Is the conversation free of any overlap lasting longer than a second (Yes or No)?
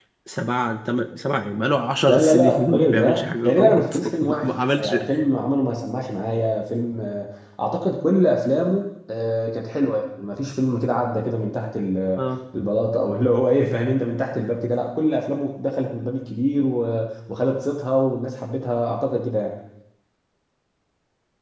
No